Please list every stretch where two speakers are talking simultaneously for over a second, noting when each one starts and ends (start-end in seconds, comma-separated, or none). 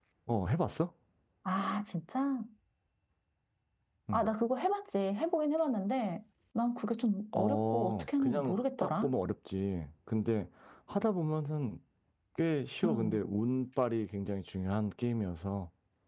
7.4-9.1